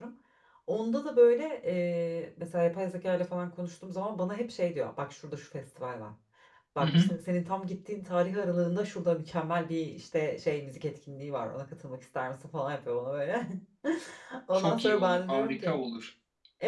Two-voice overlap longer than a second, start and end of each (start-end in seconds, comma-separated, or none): 14.5-15.8